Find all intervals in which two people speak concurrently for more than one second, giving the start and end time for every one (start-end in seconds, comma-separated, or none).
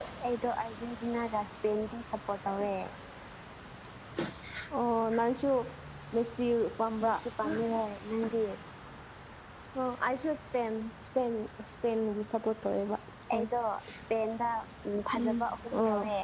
none